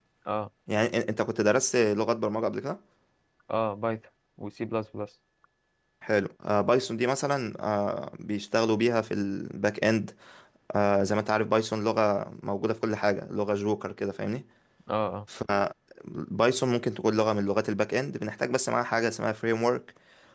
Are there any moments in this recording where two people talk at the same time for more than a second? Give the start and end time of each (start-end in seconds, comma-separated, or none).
none